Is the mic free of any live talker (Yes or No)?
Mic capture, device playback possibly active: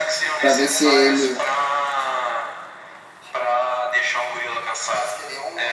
No